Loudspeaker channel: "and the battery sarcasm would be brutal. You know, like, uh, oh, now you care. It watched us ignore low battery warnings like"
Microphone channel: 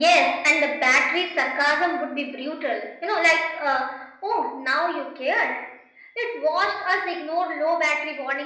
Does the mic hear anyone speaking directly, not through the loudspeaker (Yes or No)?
No